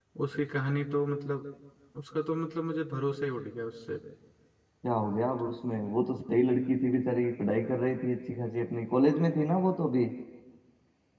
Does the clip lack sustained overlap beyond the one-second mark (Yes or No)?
Yes